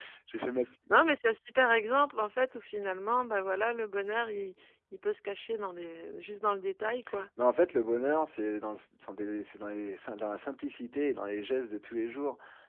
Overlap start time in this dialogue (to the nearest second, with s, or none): none